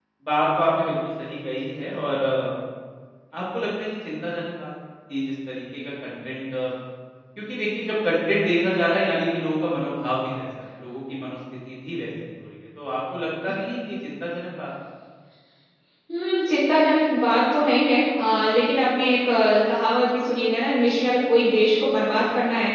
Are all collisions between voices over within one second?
Yes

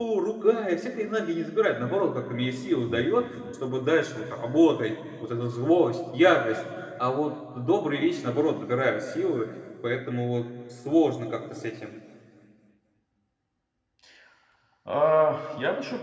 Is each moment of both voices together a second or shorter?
Yes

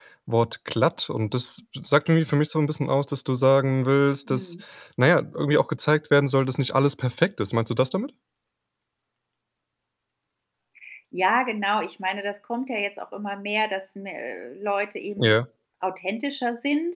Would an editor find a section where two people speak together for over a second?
No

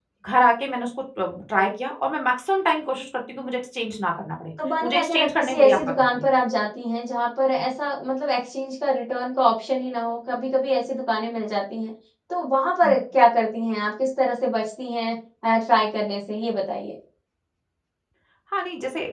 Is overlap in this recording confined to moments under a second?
No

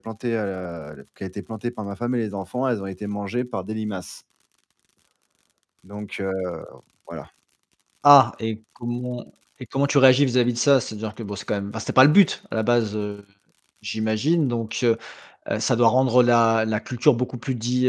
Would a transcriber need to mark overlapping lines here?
No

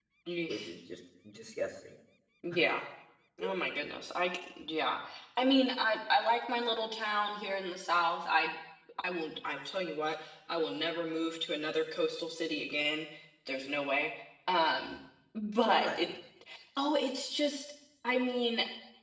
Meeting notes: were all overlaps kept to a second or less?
Yes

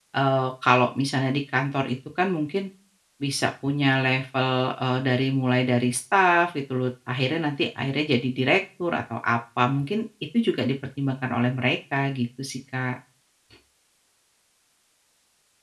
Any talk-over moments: No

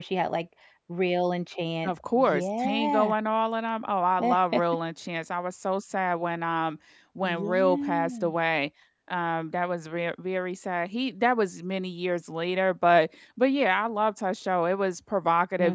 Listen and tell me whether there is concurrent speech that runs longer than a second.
Yes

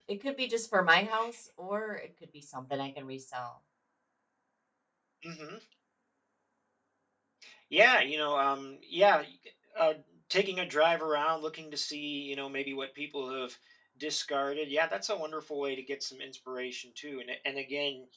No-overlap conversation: Yes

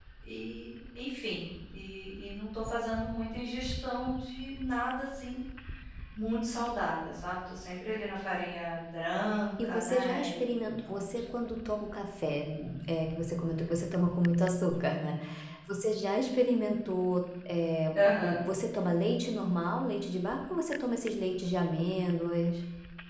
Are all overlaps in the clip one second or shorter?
No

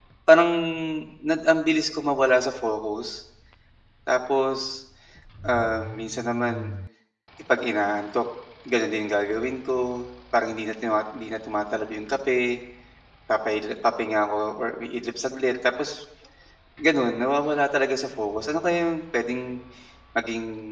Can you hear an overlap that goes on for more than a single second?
No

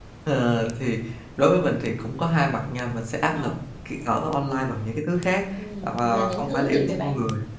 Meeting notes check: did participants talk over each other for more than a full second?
Yes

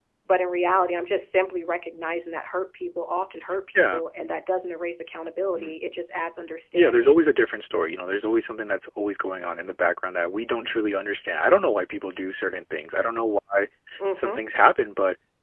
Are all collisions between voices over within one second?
Yes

